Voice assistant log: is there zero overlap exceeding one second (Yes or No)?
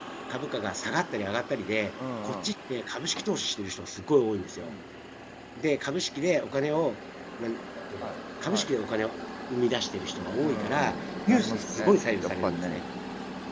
No